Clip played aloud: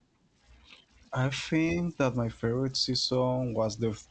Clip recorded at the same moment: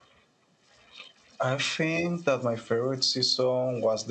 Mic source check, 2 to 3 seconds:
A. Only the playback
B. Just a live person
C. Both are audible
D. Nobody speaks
A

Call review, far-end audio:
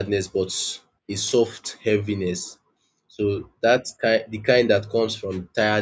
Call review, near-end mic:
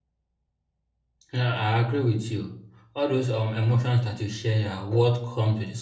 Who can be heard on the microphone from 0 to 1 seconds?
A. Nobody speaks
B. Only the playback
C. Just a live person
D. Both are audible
A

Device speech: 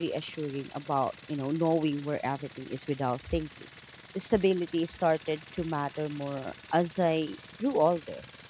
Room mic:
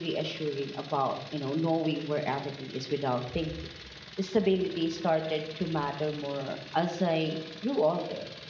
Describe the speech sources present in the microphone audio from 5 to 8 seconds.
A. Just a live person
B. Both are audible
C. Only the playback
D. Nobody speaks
C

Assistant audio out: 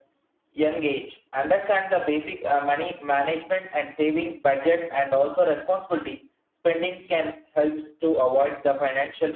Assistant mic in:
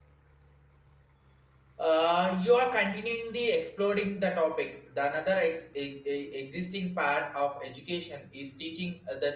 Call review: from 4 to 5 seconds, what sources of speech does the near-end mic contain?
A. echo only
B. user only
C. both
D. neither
B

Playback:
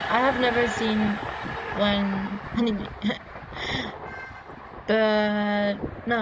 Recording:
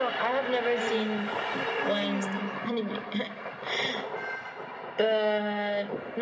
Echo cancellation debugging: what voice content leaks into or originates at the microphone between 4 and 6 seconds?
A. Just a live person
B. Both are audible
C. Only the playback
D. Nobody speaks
C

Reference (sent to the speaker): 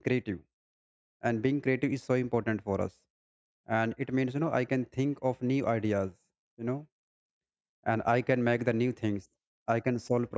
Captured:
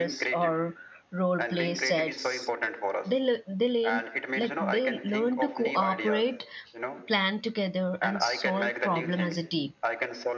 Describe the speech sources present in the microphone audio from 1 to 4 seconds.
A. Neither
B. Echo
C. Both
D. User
C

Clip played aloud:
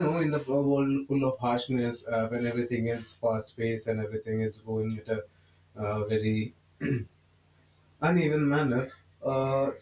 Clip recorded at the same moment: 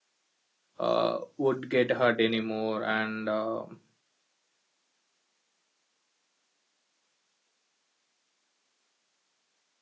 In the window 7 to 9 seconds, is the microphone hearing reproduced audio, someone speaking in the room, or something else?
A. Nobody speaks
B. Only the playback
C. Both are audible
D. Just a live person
A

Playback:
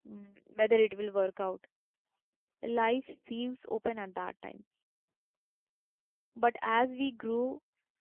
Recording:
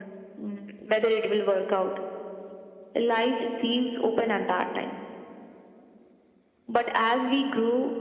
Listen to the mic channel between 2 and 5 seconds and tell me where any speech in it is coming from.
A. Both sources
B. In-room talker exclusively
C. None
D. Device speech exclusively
D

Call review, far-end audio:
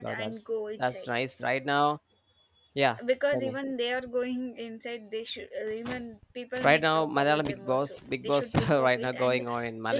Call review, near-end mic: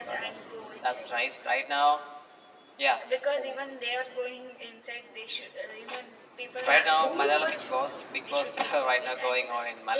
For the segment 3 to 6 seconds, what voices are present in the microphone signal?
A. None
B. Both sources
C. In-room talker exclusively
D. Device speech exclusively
D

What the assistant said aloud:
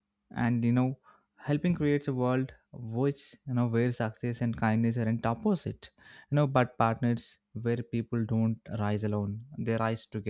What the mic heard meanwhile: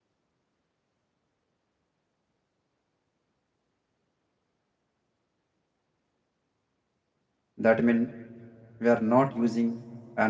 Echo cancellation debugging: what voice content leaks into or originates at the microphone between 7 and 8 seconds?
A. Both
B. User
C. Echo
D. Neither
B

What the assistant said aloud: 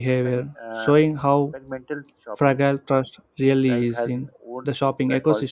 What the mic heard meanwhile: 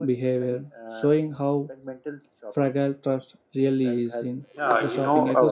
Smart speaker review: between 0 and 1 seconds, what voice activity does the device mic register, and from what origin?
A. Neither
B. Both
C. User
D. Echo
D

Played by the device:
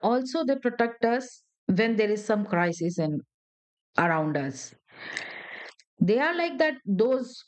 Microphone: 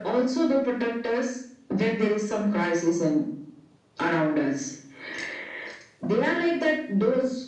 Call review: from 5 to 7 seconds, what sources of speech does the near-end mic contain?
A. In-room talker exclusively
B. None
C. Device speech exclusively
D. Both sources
C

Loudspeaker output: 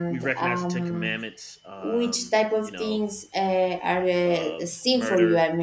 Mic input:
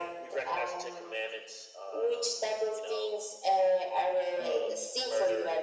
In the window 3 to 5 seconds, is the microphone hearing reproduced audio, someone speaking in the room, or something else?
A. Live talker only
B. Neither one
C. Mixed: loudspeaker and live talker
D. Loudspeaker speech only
C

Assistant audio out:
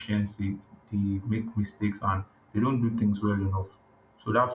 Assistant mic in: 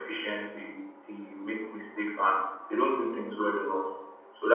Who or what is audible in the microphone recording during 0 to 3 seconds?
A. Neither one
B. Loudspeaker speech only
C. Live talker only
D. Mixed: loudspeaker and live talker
B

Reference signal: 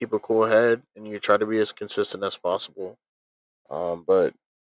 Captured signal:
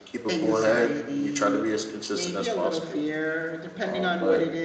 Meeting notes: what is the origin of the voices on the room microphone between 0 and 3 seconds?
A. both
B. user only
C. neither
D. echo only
A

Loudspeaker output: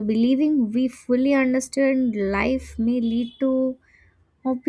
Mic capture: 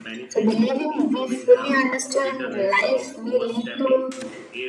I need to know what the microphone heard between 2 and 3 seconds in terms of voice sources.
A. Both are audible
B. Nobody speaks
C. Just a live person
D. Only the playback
A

